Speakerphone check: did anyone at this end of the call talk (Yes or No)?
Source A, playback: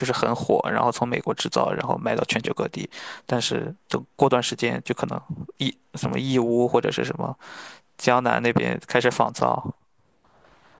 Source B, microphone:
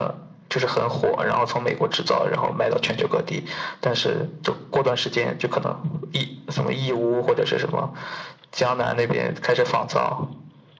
No